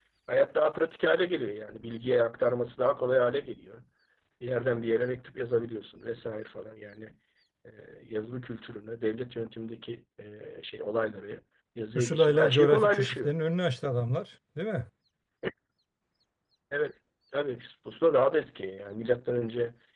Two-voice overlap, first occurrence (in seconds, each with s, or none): 11.9 s